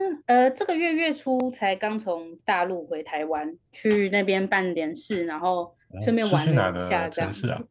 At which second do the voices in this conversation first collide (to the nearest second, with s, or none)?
6 s